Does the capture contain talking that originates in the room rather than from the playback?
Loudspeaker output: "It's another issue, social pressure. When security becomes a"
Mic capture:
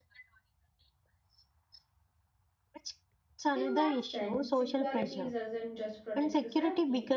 Yes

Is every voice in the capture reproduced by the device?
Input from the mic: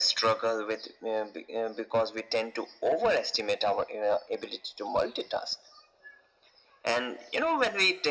Yes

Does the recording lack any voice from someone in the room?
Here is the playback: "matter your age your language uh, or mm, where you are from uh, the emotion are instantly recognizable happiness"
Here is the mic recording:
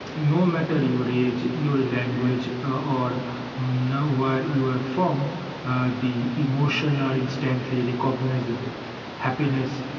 Yes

